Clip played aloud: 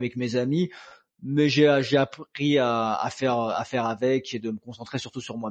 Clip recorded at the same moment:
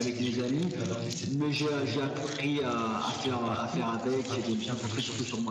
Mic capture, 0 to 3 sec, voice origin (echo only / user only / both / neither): both